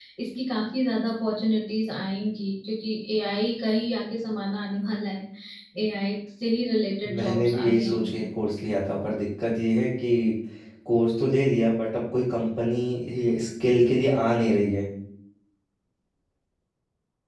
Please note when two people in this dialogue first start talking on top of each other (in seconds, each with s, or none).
7.0 s